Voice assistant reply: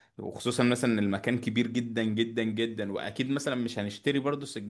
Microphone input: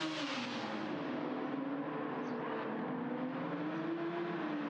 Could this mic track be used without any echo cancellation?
Yes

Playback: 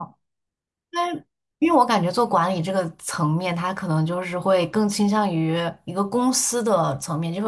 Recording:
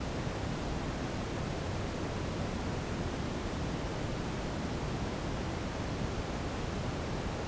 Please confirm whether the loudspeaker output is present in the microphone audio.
No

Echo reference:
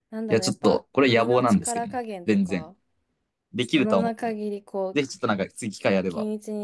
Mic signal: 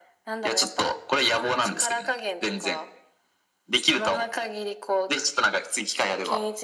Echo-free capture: No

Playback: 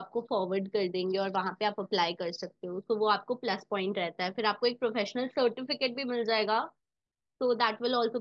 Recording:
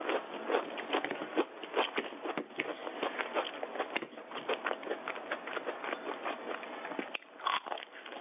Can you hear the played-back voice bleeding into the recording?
No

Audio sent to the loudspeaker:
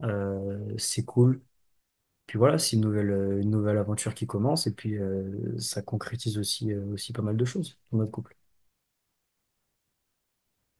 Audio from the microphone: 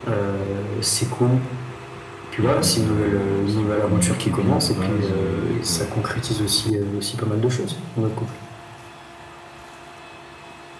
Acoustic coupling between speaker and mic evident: Yes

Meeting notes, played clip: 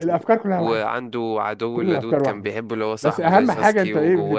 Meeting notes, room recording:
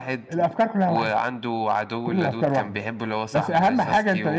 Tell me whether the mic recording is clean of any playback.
No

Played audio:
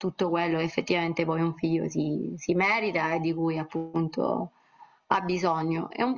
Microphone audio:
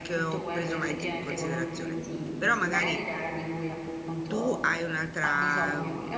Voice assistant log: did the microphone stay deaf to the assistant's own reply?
No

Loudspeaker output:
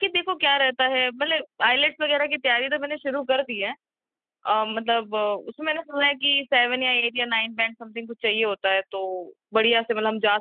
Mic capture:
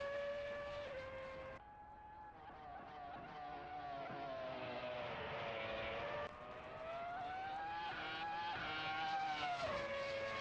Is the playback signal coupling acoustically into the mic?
No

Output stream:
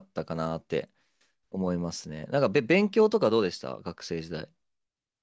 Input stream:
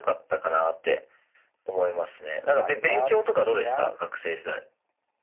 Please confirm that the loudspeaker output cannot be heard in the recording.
No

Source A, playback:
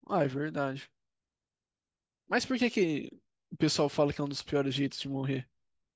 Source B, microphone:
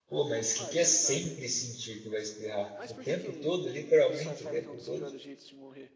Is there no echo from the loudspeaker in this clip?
No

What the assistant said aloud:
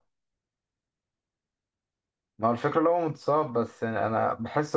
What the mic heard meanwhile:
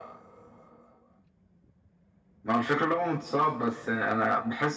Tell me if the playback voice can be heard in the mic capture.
Yes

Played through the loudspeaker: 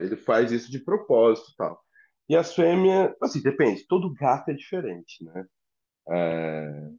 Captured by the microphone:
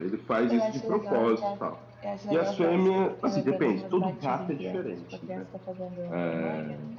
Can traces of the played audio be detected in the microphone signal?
Yes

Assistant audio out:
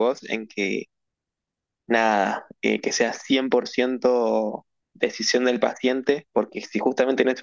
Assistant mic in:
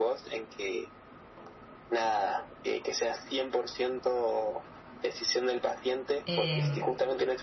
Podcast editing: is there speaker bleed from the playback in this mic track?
Yes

